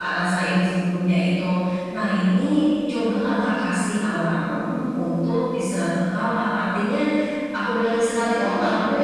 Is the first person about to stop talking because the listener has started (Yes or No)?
No